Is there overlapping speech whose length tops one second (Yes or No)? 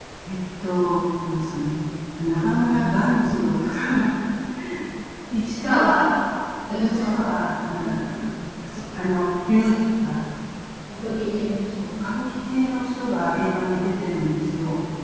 No